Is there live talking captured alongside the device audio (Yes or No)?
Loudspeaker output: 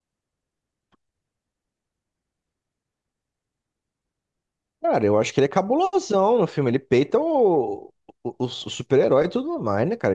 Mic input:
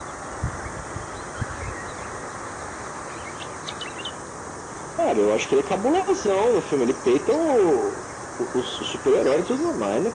No